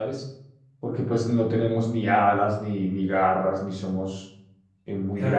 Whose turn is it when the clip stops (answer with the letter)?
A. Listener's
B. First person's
A